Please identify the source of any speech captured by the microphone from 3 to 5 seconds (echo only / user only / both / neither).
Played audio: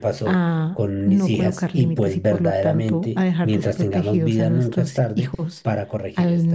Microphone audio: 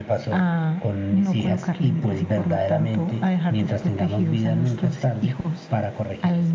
echo only